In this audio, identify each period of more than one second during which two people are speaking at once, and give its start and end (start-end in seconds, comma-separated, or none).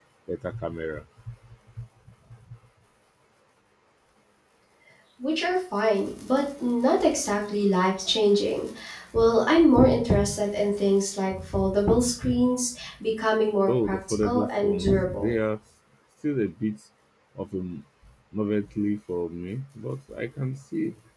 13.7-15.3